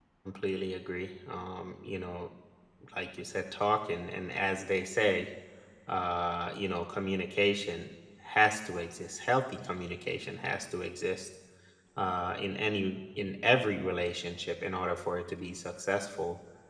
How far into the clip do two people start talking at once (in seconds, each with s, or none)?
none